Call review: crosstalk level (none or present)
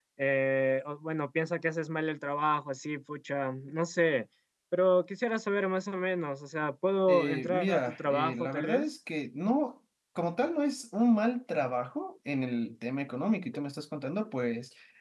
present